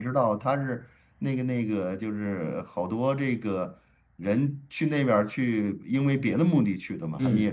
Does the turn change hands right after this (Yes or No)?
Yes